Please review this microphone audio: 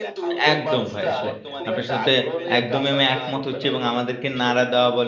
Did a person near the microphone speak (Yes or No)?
Yes